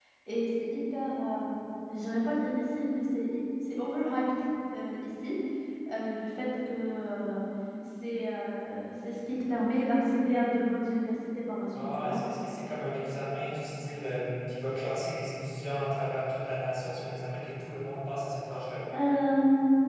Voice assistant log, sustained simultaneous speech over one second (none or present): none